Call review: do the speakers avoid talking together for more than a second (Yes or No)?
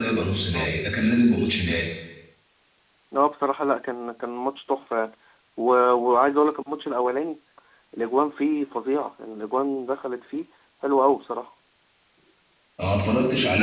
Yes